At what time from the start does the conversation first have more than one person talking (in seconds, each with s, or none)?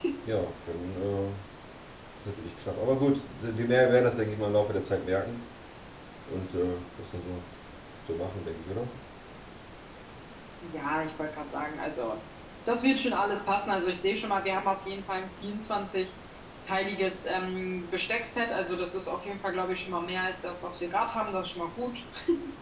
none